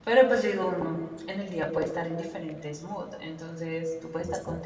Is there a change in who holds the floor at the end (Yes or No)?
No